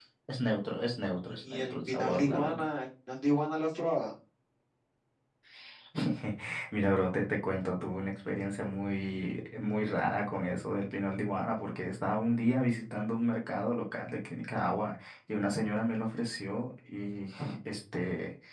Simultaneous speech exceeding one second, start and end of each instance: 1.4-2.6

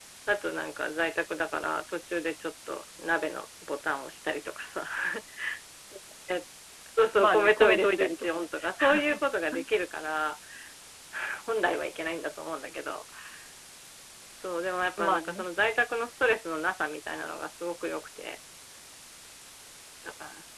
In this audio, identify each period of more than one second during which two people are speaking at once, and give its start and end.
7.2-8.5

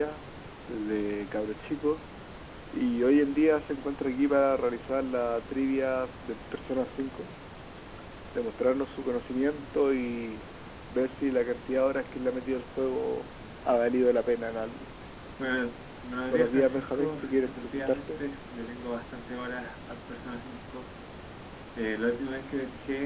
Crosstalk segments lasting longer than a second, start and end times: 16.3-18.2

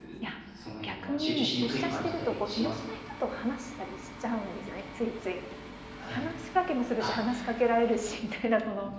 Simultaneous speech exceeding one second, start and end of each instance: 0.8-2.8

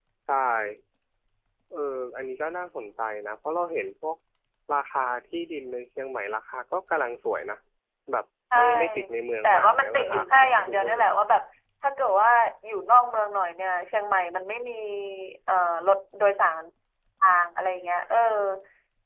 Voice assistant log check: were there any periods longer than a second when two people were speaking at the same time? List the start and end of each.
9.4-11.1

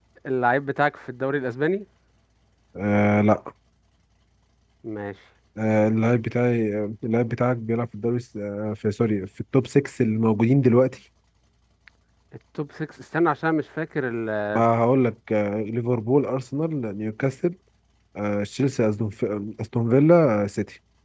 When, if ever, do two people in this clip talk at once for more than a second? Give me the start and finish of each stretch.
none

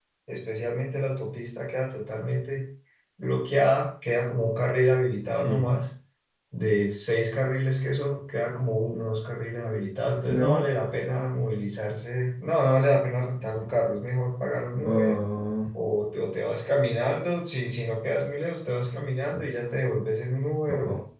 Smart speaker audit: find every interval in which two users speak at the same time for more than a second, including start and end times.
none

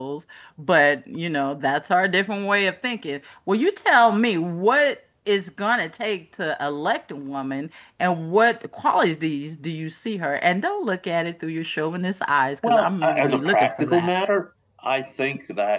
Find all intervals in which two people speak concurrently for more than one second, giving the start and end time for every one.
12.6-14.1

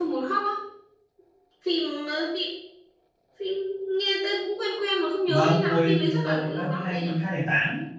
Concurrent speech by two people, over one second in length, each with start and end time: 5.2-7.1

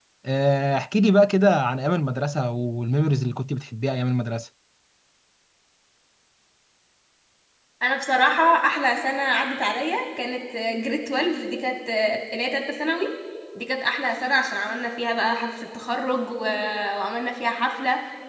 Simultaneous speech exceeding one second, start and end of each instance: none

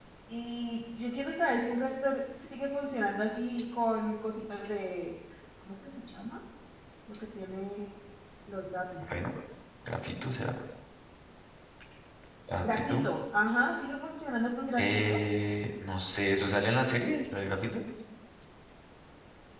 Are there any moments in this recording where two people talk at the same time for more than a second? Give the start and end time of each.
none

